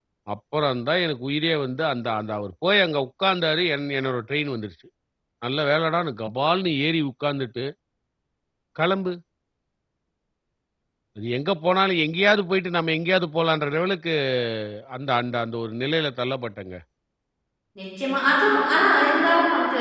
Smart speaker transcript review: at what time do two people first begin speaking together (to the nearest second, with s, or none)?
none